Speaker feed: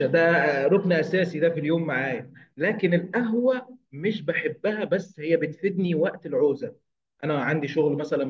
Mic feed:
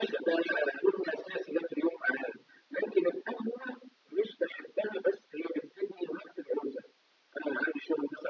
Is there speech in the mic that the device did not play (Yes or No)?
No